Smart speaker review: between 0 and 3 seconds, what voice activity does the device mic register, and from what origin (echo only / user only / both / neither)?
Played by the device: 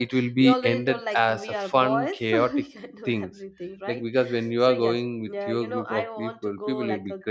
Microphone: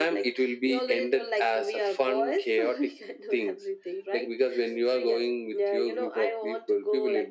echo only